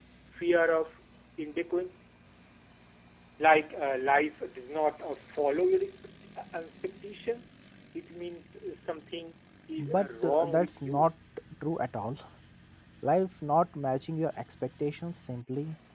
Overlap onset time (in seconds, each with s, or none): 9.8 s